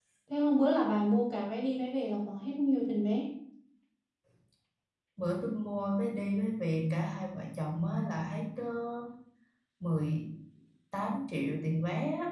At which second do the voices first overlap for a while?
none

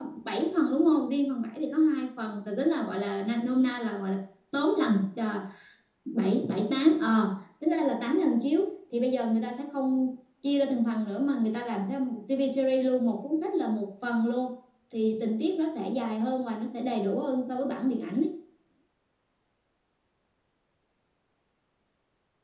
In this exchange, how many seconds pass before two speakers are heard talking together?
none

